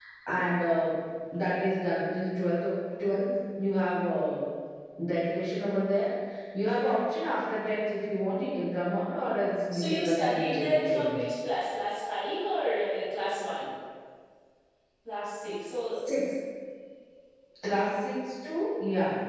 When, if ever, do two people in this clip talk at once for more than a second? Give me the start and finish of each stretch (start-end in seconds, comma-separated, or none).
9.7-11.2